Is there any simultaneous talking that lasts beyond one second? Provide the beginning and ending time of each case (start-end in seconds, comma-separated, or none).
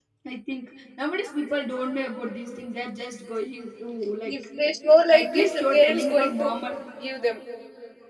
5.1-6.5